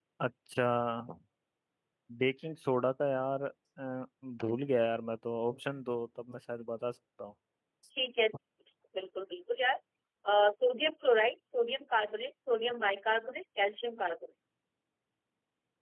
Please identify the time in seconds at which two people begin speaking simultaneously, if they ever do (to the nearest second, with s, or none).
none